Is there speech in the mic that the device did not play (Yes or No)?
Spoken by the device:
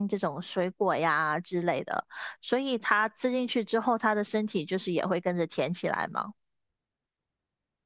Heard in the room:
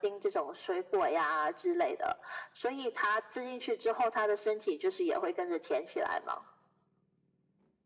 No